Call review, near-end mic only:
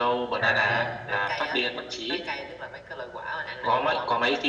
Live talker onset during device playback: 0.4 s

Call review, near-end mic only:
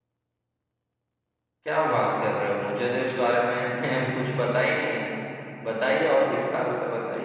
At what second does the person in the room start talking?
1.6 s

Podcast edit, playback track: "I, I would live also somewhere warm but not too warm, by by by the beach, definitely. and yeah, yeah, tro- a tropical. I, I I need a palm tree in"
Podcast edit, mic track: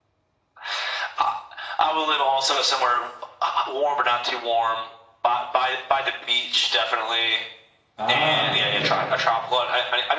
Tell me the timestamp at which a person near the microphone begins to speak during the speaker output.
8.0 s

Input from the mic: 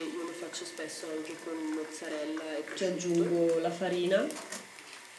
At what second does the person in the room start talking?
2.7 s

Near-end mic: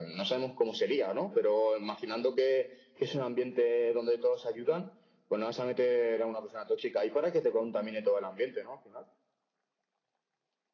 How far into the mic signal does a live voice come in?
none

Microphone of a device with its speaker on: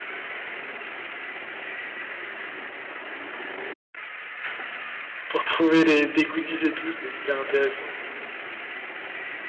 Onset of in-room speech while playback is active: 5.3 s

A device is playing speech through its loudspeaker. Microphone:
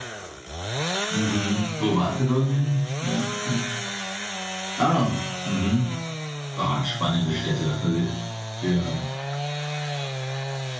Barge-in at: none

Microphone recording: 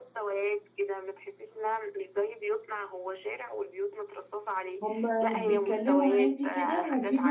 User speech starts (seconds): 4.8 s

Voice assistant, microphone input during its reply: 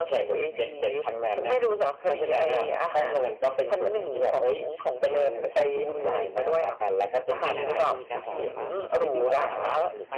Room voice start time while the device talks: 7.4 s

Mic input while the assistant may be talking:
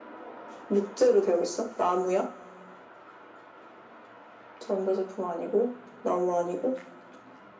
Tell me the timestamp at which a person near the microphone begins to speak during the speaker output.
none

